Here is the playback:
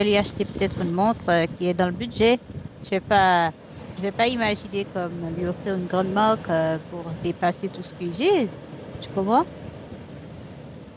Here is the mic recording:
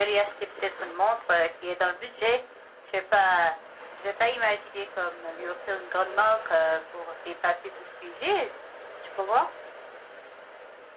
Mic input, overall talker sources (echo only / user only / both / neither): echo only